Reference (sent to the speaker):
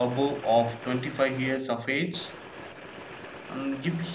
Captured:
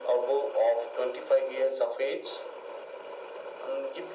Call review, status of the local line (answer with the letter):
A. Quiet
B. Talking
A